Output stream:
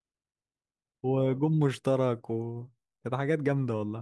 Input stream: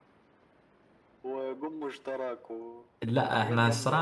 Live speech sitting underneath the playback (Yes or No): No